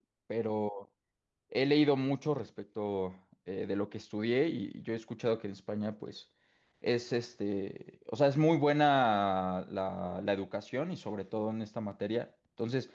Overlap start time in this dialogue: none

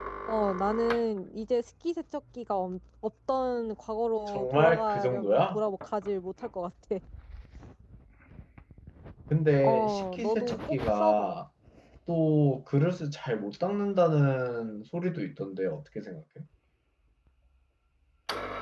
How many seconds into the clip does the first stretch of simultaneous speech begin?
4.3 s

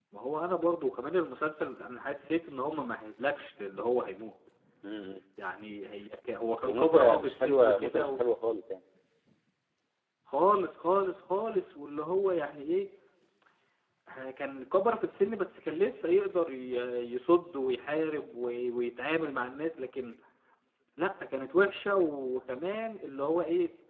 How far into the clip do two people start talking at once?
6.7 s

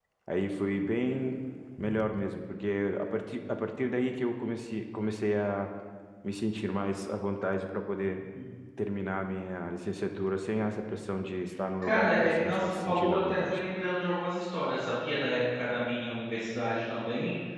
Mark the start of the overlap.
11.8 s

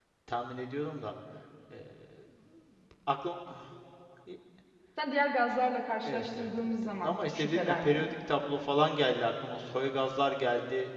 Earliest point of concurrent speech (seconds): 6.0 s

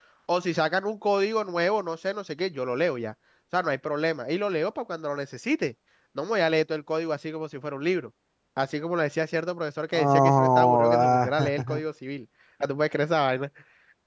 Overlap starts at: 9.9 s

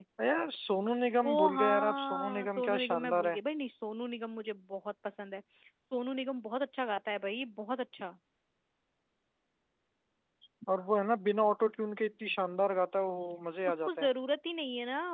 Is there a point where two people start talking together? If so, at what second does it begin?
1.3 s

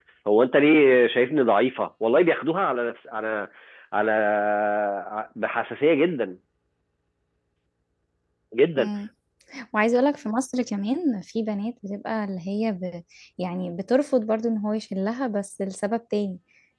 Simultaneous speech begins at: none

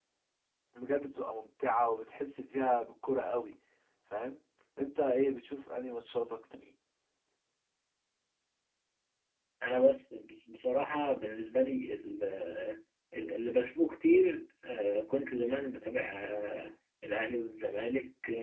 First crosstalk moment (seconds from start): none

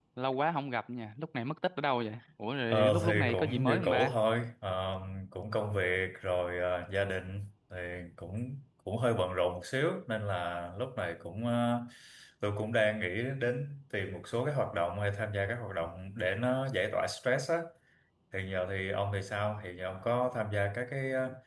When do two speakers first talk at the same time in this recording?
2.7 s

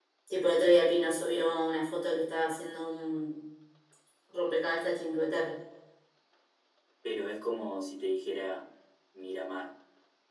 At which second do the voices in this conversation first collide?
none

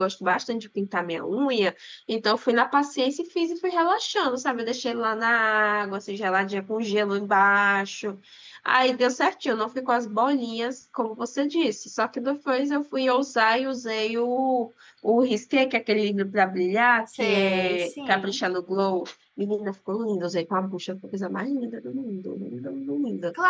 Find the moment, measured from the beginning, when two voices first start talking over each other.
17.2 s

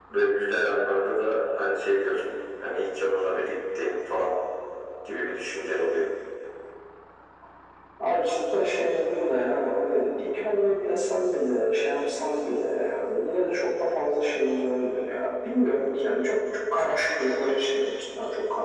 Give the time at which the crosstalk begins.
none

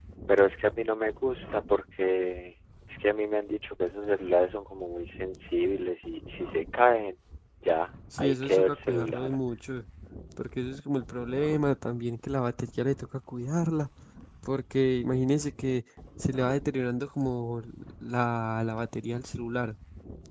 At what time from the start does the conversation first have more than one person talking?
8.2 s

